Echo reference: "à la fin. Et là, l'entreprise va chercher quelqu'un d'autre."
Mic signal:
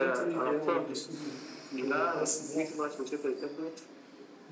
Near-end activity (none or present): present